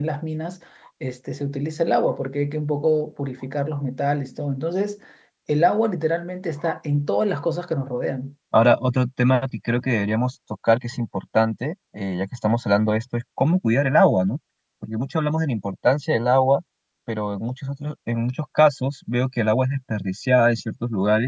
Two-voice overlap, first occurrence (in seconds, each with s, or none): none